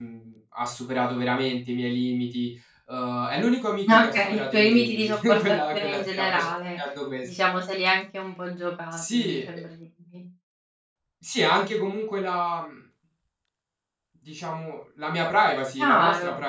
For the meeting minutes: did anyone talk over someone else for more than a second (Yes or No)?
Yes